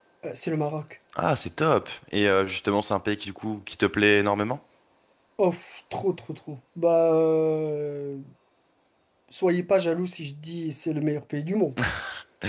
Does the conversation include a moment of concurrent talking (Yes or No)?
No